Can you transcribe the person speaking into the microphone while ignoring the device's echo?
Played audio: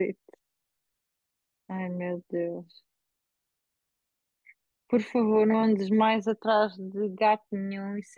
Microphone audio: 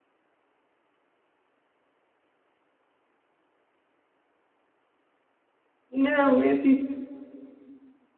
Não, é tipo,

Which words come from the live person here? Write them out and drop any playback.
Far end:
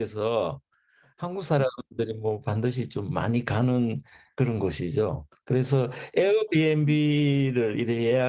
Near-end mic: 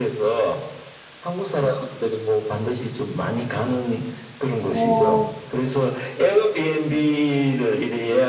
어,

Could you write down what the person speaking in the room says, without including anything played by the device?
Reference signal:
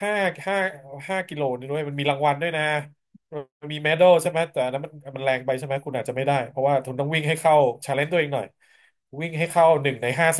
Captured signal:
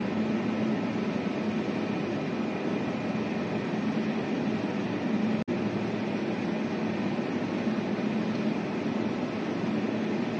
none

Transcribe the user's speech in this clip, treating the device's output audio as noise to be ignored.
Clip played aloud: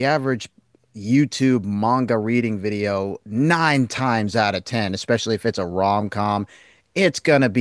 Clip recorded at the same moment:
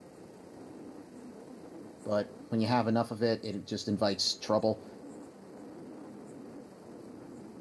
But when you have enough of it, it just invites trouble.

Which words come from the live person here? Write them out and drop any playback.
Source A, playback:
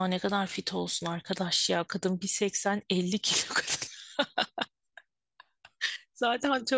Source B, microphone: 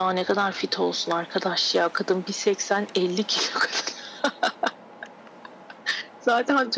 none

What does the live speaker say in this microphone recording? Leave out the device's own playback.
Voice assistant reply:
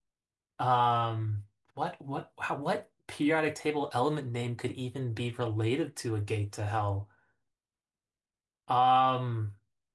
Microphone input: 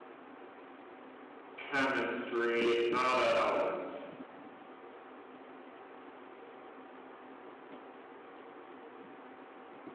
chemistry. It's not an element.

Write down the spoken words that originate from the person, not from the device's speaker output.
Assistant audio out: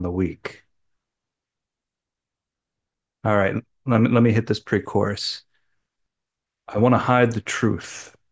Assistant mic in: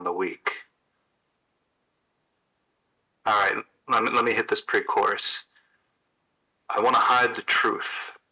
none

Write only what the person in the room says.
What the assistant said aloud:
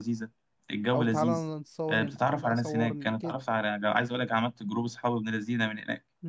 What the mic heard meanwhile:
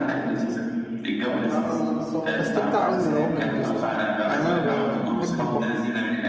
بستمتع أوي بالعوم لما بسافر يعني أنا ب- بحب البحر

